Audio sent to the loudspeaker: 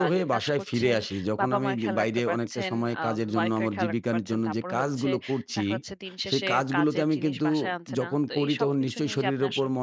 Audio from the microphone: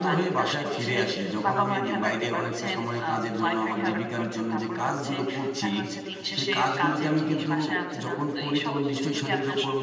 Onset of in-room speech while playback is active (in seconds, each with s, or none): none